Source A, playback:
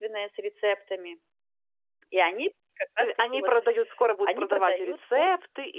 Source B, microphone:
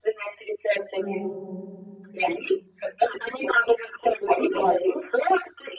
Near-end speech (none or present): present